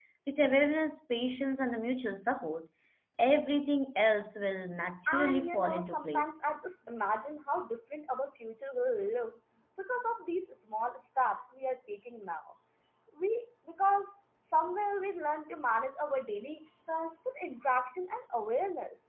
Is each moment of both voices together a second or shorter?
No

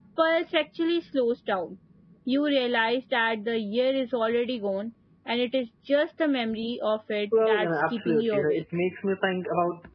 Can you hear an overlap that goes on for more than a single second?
Yes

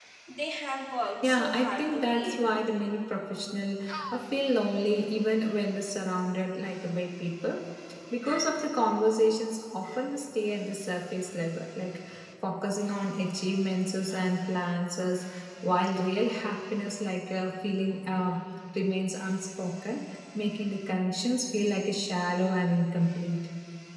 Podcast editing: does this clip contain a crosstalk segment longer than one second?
Yes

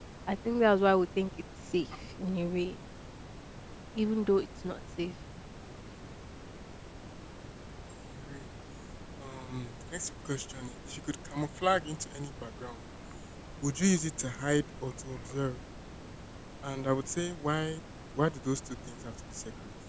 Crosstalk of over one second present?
No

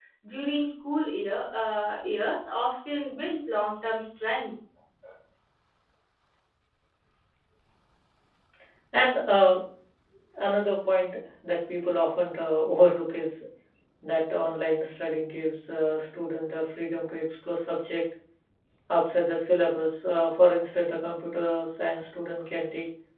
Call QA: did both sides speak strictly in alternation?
Yes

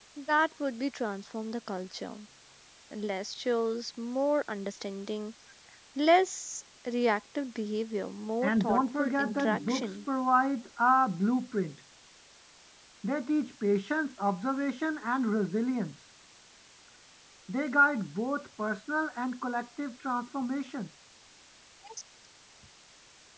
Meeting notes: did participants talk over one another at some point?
Yes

